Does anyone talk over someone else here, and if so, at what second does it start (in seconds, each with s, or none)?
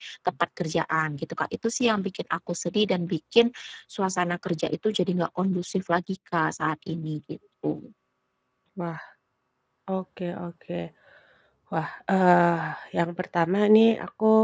none